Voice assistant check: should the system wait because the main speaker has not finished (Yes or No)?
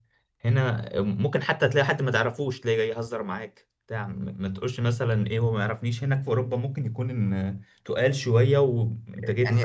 No